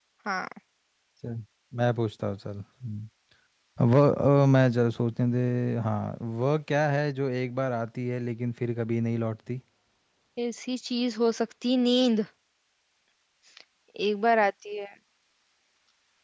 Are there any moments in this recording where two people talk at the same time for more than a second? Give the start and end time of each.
none

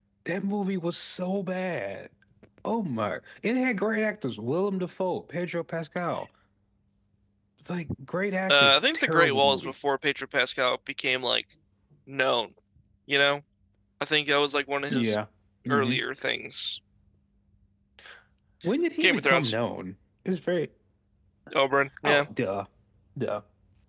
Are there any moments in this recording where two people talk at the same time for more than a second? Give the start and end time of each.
8.5-9.7

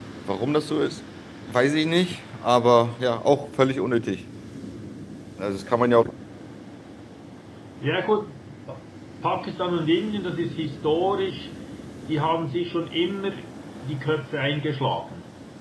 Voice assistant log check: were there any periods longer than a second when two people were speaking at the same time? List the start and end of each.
none

